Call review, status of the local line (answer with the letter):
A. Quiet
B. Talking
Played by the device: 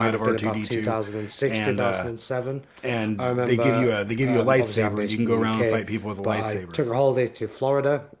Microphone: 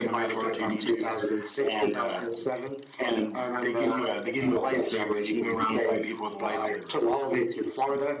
A